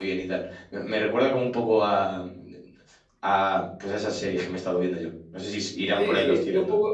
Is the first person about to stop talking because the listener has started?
Yes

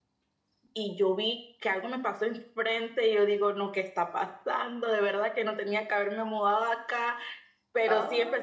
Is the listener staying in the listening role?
Yes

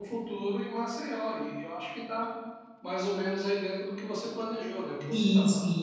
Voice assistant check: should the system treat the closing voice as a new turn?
Yes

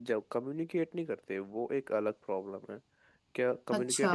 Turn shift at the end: No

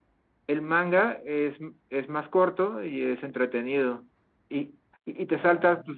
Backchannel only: Yes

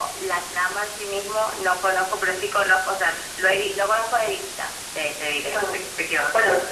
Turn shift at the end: Yes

